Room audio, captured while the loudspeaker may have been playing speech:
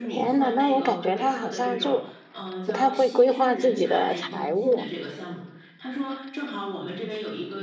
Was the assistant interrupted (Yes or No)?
Yes